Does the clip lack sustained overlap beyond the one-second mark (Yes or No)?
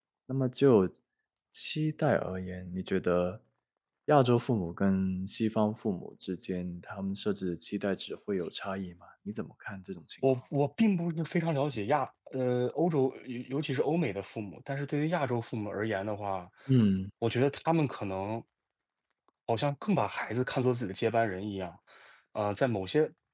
Yes